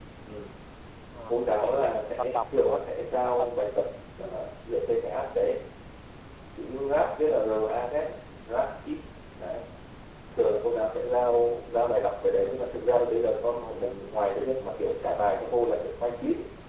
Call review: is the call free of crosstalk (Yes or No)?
No